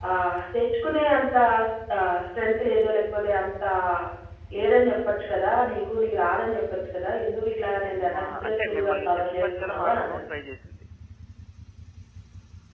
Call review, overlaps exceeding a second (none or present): present